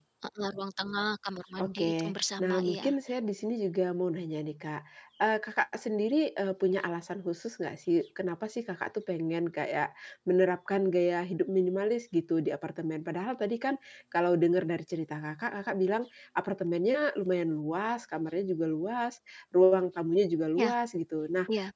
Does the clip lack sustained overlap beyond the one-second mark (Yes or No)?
No